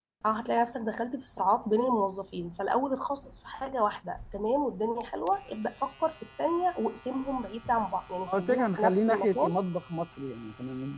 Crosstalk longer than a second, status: present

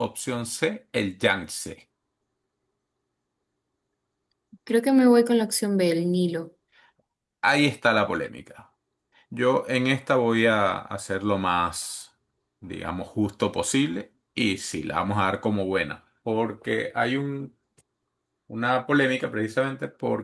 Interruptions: none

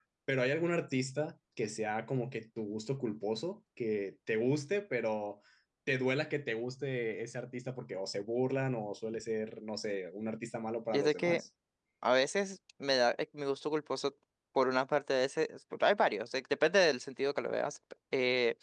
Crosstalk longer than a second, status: none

